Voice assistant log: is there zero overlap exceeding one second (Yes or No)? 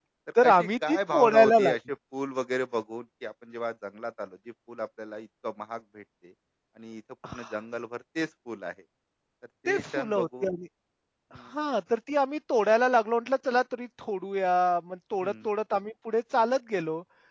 No